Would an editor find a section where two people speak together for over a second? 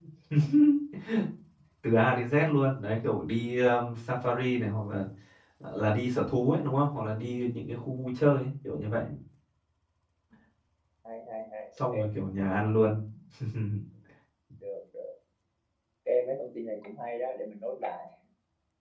No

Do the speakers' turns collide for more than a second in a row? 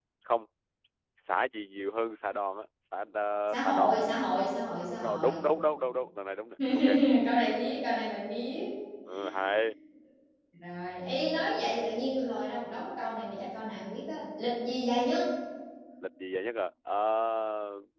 No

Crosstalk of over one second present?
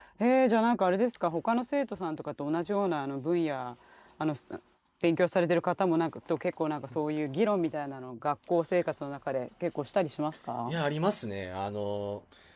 No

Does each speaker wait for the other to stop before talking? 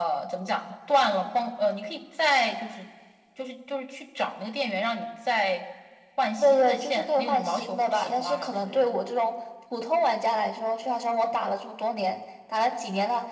No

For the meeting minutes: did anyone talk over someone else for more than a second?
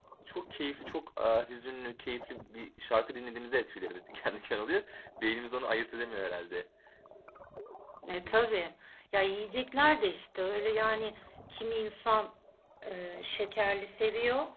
No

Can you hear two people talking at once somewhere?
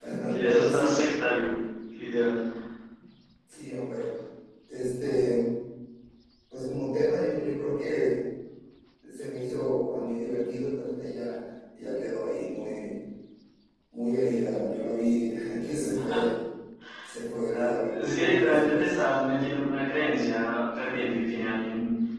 Yes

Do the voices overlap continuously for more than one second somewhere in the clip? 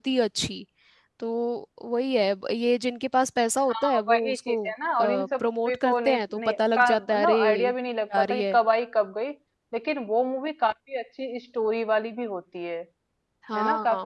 Yes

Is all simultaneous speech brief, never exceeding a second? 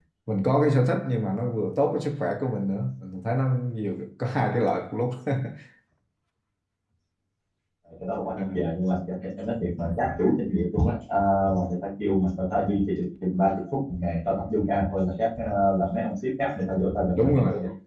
Yes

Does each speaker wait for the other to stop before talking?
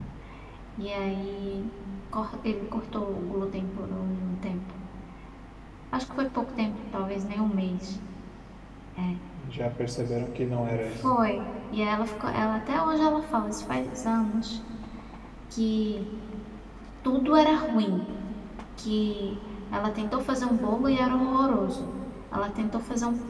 Yes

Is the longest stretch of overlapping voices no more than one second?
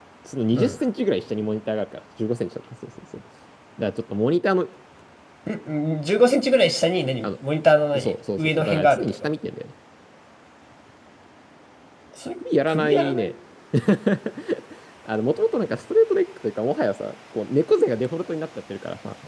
No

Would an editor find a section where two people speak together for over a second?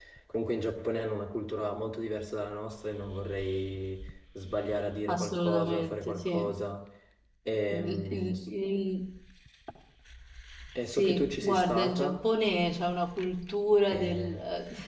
Yes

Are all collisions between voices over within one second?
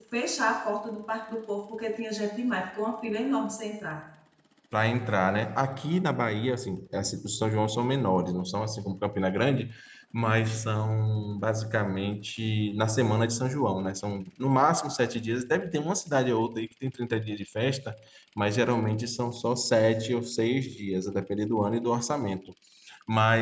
Yes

